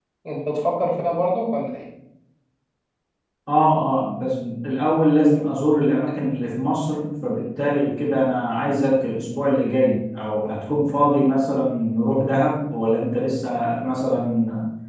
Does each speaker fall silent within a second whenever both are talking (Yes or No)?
Yes